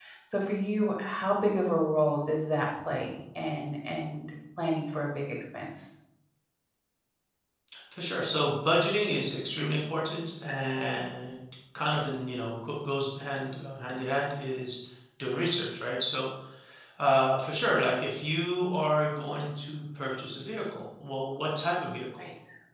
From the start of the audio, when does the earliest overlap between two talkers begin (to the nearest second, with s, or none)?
none